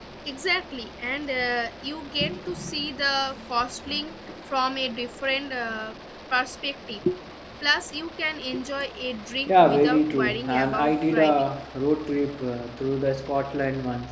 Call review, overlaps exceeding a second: present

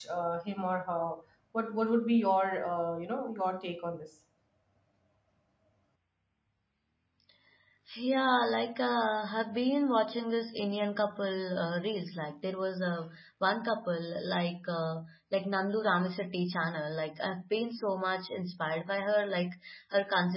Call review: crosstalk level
none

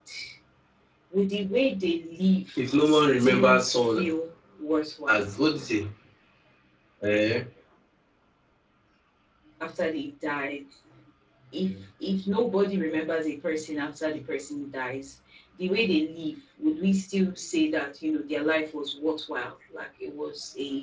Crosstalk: present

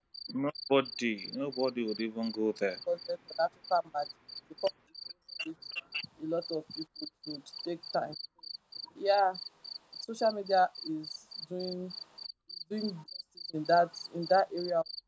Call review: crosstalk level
none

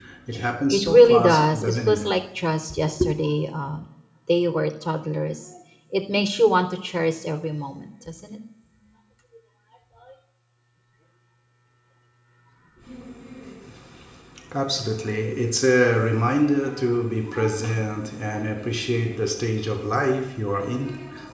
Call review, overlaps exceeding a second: present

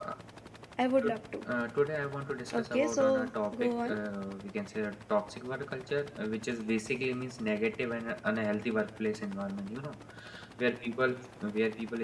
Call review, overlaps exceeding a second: present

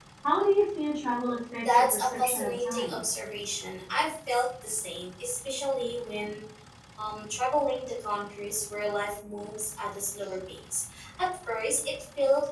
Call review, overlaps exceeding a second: present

